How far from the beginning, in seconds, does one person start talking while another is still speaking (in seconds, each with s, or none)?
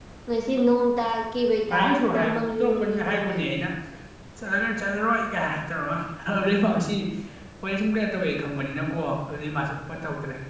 1.7 s